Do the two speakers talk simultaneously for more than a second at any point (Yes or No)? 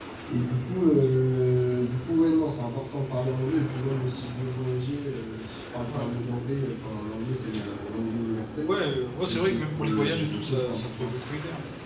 Yes